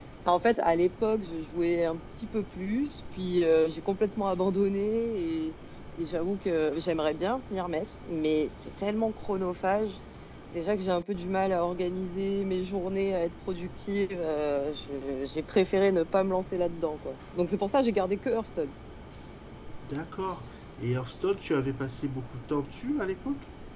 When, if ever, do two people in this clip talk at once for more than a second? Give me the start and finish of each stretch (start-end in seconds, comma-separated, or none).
none